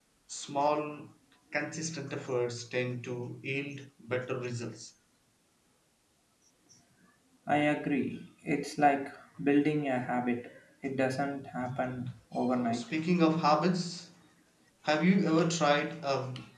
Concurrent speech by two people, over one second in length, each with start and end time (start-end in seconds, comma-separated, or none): none